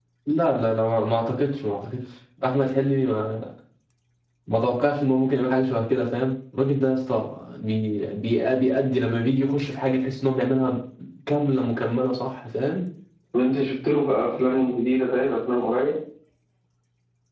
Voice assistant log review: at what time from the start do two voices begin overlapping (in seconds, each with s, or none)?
none